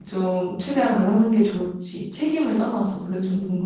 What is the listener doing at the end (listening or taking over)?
taking over